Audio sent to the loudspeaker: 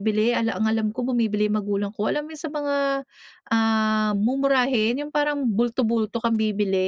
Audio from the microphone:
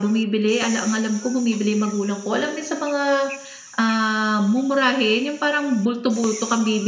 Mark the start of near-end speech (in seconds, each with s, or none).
none